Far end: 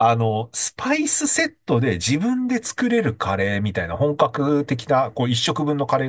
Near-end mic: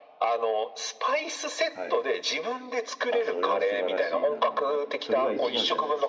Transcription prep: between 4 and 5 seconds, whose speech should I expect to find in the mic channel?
both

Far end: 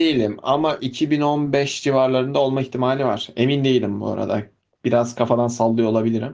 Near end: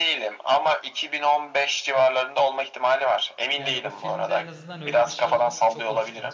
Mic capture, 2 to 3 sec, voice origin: echo only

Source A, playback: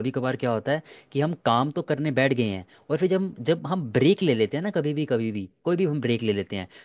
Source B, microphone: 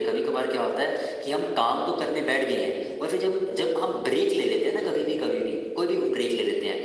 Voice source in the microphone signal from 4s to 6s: echo only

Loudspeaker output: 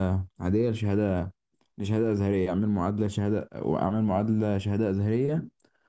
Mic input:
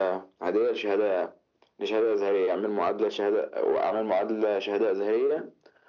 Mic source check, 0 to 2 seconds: echo only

